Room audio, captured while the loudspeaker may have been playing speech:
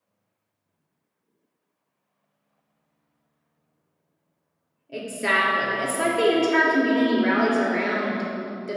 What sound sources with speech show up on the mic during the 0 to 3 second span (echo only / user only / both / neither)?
neither